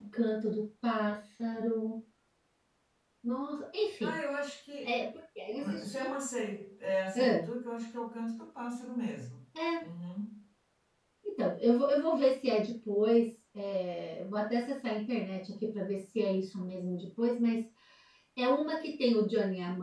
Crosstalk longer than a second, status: none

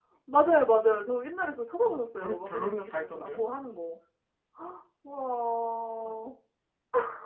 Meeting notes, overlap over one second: present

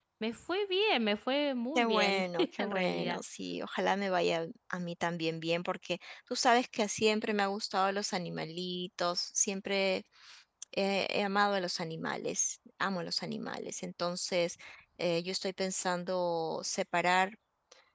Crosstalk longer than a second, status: present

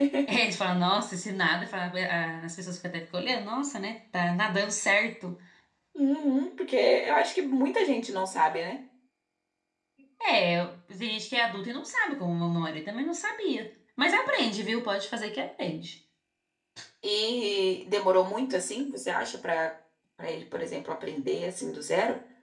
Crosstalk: none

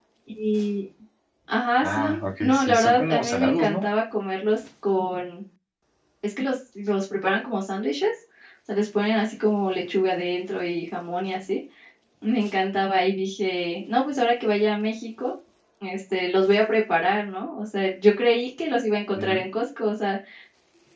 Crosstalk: present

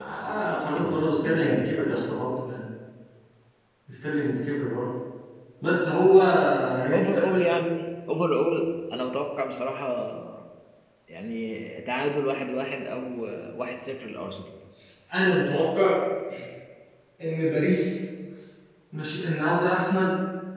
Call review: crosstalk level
present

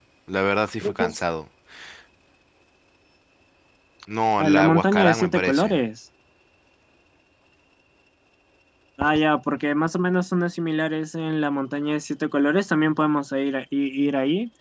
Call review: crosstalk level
present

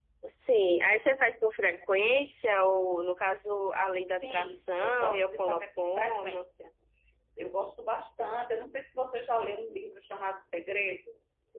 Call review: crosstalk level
present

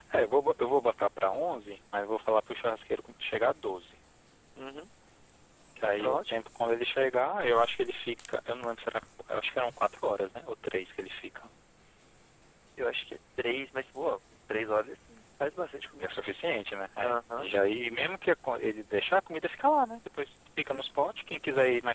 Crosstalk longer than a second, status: none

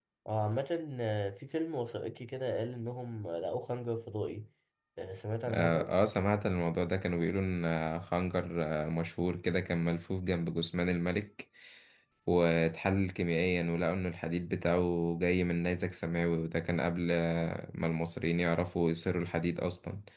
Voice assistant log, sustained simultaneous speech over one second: none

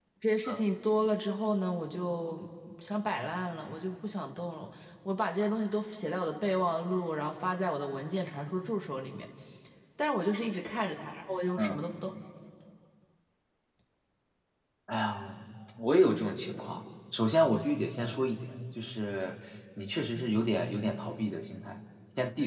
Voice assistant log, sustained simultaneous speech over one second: none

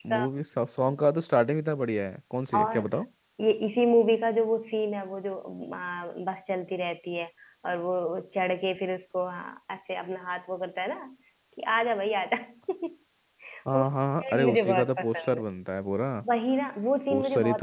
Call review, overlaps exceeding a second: present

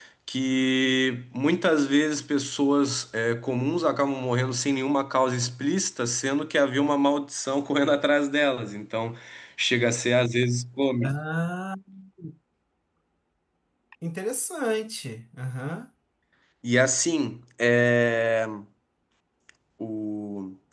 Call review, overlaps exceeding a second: none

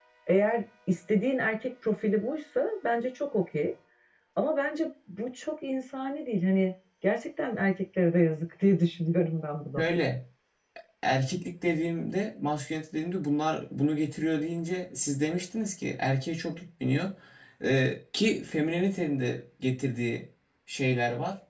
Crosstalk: none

